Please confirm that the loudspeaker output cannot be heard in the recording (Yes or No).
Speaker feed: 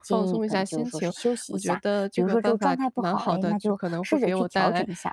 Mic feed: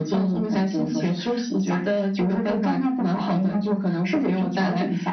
No